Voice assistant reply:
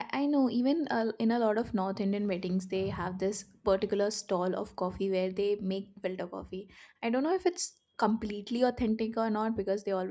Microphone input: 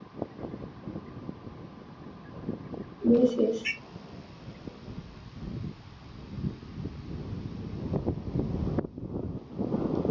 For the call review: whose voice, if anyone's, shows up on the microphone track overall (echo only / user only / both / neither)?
user only